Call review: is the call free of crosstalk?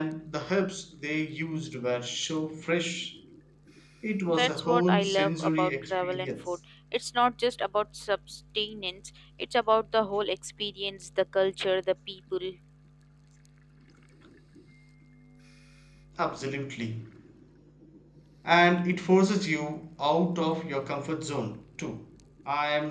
No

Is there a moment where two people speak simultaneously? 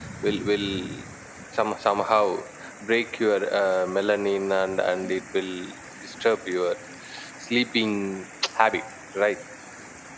No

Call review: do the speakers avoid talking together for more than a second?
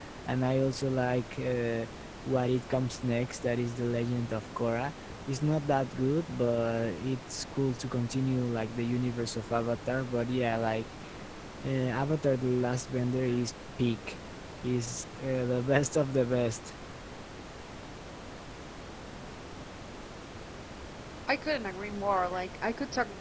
Yes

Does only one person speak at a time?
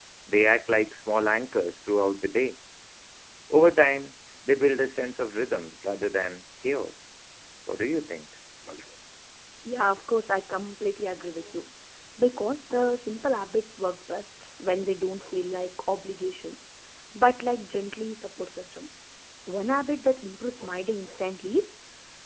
Yes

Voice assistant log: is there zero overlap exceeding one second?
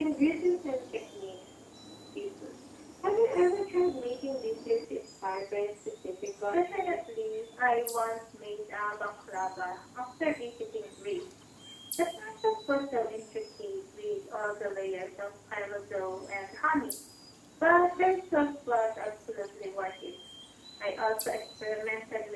Yes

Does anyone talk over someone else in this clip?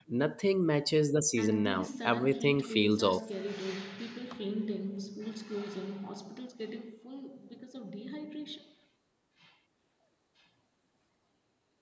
Yes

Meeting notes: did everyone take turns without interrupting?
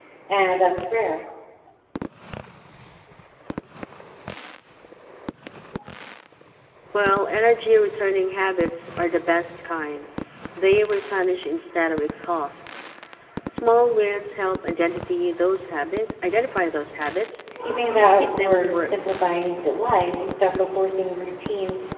No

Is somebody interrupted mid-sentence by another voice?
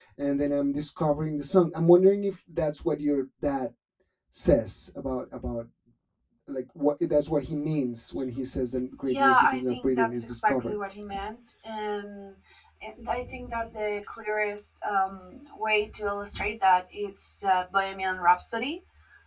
Yes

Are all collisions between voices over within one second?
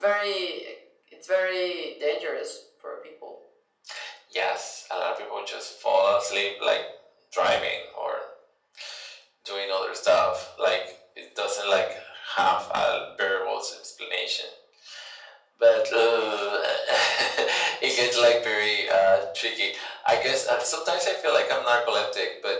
Yes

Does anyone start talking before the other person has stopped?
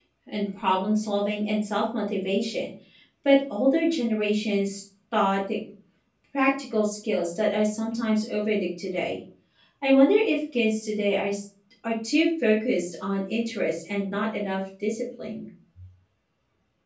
No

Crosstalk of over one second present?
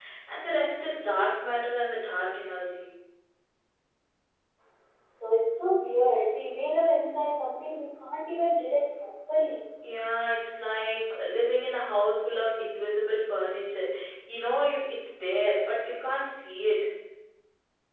No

